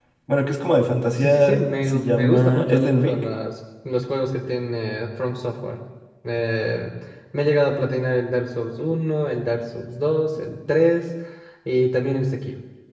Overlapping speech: Yes, from 1.2 s

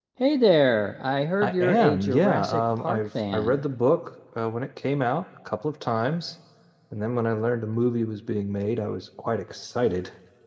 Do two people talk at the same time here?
Yes, from 1.4 s

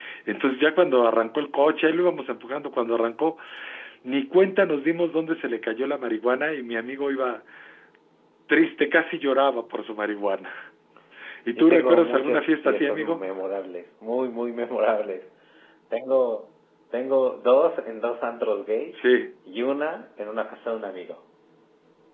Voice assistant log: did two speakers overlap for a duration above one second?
Yes, from 11.6 s

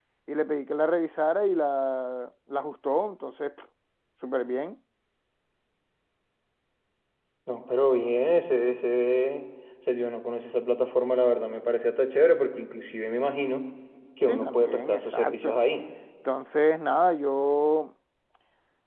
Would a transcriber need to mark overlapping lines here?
Yes, from 14.3 s

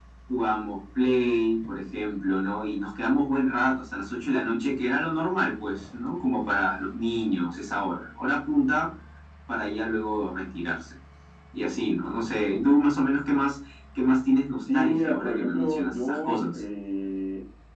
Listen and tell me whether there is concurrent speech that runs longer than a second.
Yes, from 14.7 s

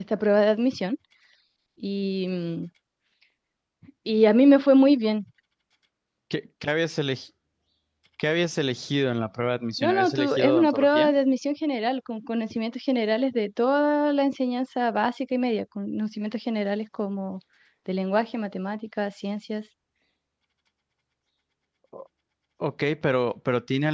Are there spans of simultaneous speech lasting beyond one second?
Yes, from 9.8 s

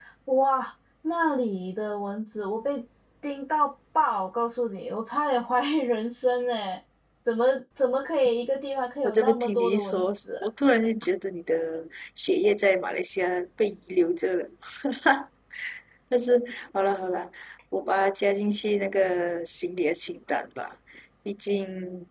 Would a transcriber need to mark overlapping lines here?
Yes, from 9.0 s

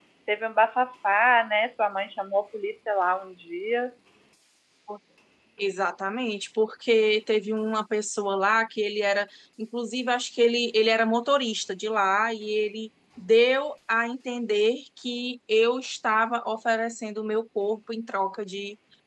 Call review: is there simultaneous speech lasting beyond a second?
No

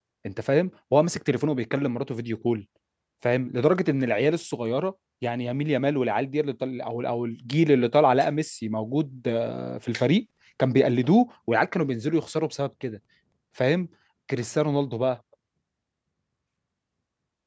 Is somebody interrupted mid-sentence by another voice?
No

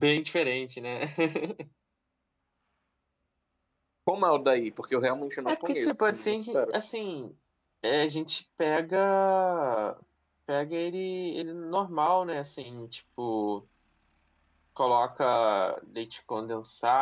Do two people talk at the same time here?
Yes, from 5.5 s

